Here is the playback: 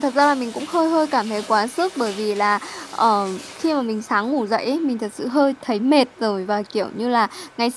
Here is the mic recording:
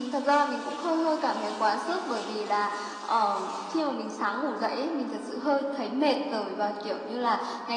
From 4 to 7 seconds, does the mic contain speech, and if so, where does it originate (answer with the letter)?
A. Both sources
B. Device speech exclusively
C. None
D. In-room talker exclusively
B